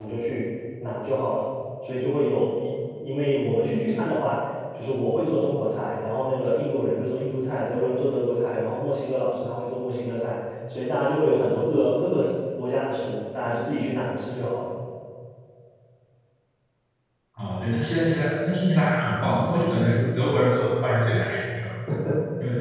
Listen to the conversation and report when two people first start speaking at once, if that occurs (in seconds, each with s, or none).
none